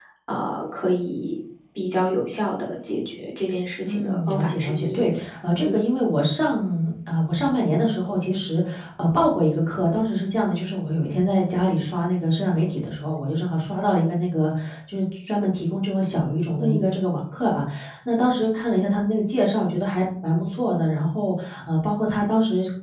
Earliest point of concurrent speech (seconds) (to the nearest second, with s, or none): 4 s